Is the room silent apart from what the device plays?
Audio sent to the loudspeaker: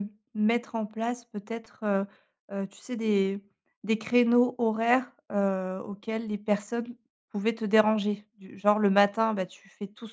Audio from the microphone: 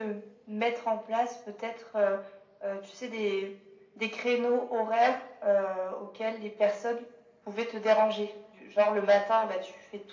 Yes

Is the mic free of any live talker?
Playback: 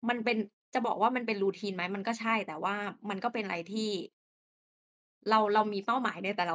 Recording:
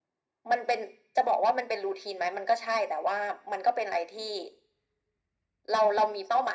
Yes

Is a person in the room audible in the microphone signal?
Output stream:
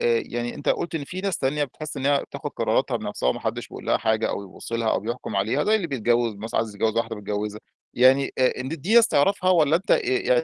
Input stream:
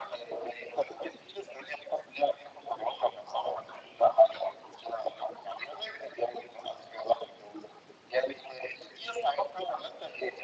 No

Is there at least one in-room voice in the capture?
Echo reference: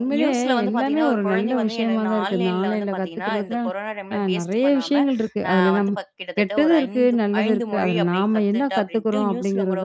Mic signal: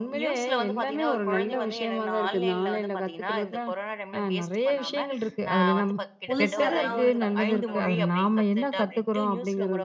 Yes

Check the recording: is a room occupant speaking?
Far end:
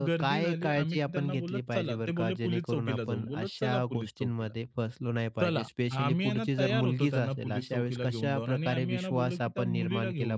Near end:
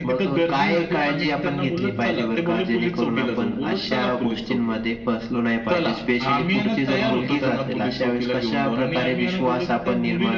Yes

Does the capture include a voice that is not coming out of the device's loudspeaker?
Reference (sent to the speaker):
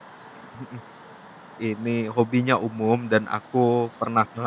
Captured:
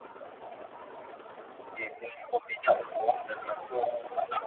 No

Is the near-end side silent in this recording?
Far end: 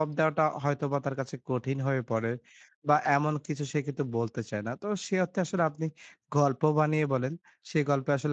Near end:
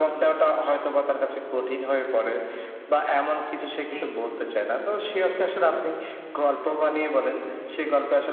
No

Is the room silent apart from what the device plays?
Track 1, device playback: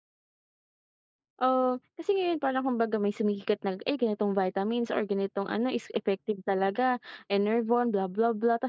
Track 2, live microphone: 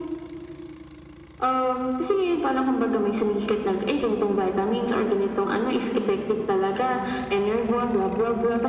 Yes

